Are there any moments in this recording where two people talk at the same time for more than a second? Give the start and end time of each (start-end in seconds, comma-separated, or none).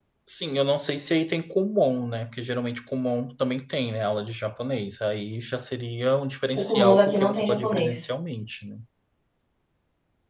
6.6-8.1